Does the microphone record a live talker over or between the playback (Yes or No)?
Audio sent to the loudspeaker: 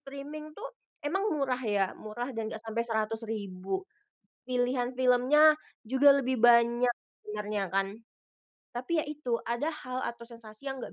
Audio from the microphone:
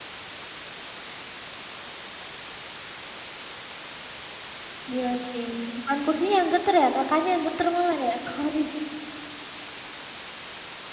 Yes